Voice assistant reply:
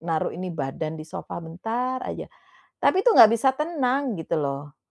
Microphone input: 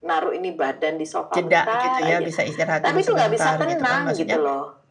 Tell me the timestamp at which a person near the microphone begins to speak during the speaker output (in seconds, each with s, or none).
1.3 s